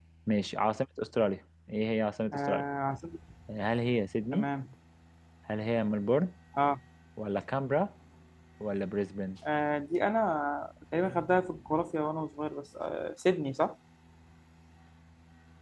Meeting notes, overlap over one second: none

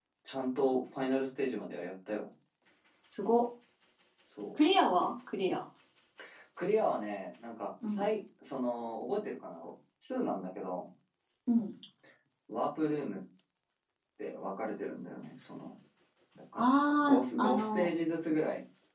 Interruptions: present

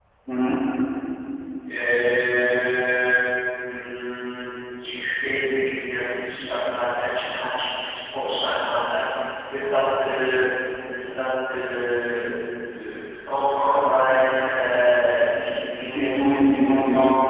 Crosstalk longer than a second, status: present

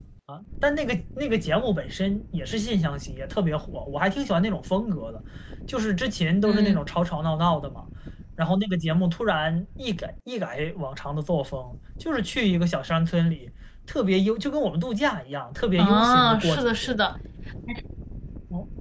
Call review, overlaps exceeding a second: present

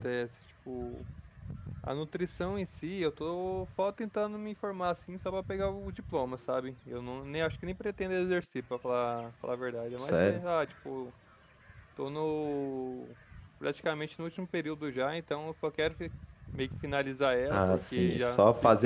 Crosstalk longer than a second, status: present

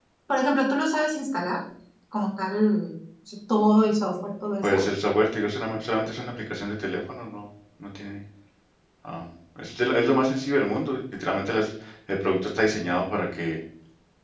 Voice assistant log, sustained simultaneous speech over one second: none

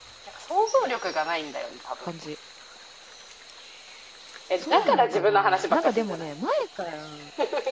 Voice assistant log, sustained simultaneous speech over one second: present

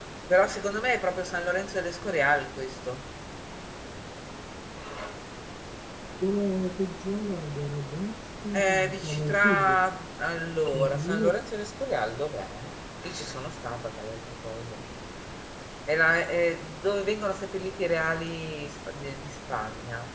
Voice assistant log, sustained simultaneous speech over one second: present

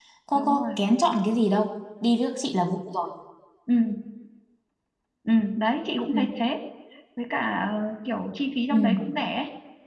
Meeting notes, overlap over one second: none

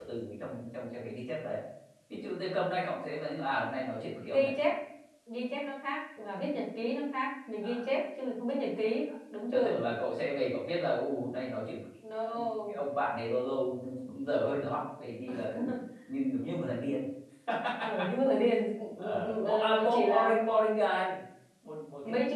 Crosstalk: present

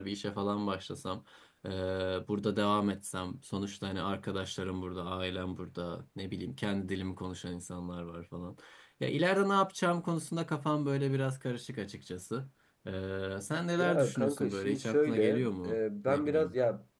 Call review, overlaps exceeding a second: present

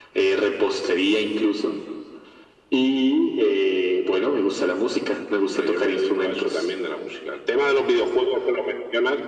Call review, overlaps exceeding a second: present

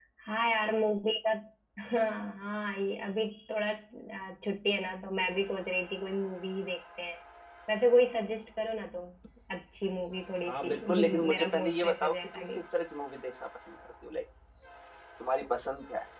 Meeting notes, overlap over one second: present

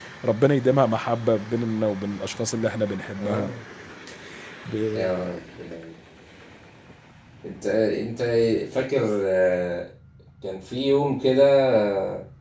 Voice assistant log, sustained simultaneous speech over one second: none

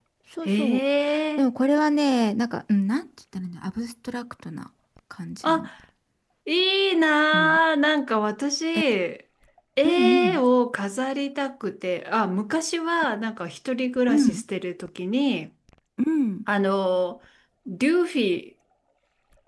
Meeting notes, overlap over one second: none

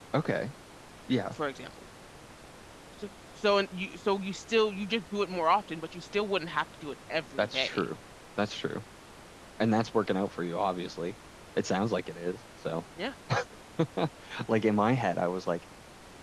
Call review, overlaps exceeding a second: none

